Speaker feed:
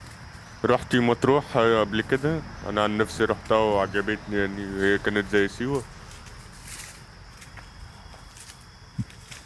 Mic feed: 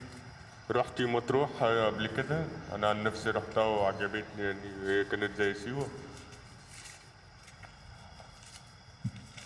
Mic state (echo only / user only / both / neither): echo only